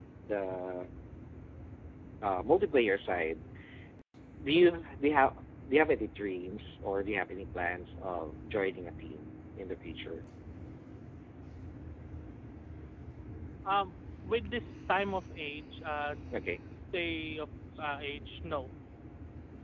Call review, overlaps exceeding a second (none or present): none